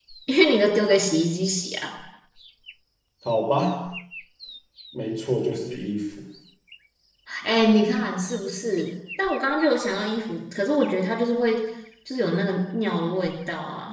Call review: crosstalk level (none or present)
none